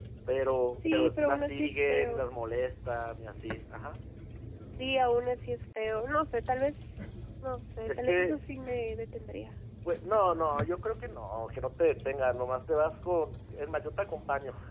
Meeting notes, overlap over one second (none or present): present